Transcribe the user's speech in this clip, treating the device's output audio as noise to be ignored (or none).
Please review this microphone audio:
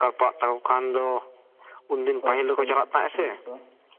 ᱯᱷᱚᱨᱮᱥᱴ ᱯᱷᱚᱨᱮᱥᱴ ᱯᱩᱞᱤᱥ ᱠᱚᱼᱼ